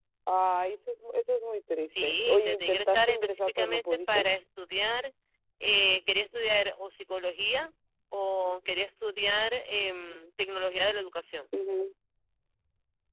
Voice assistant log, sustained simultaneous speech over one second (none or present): present